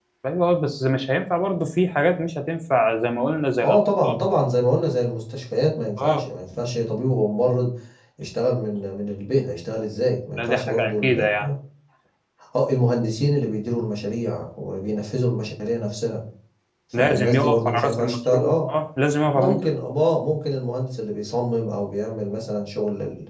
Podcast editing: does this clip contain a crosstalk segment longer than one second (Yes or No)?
Yes